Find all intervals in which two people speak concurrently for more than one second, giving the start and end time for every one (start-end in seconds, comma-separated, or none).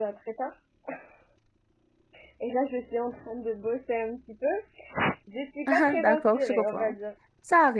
5.7-6.9